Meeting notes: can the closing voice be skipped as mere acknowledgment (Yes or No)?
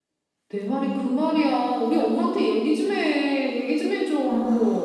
No